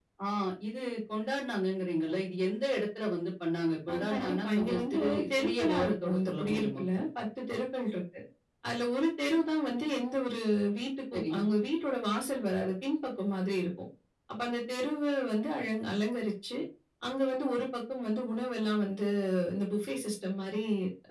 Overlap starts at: 3.9 s

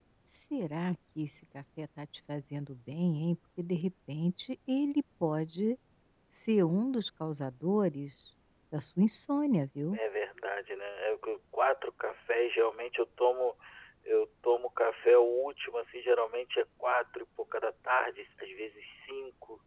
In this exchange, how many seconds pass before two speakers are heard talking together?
none

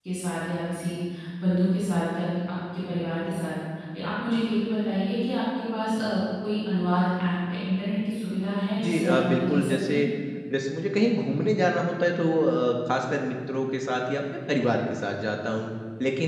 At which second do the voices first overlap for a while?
8.8 s

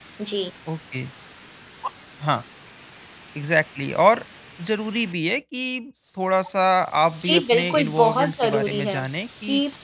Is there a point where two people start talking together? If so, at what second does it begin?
7.2 s

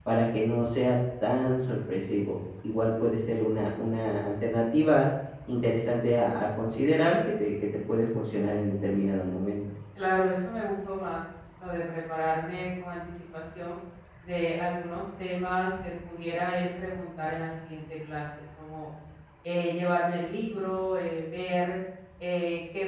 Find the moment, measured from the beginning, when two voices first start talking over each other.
none

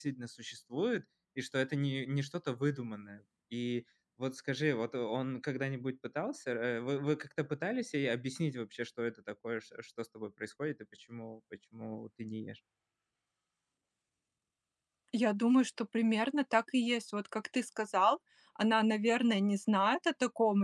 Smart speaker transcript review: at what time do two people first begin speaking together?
none

